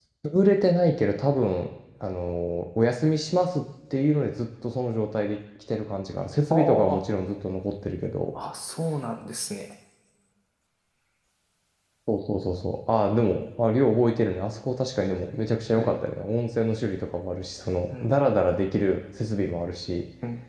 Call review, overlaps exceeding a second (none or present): none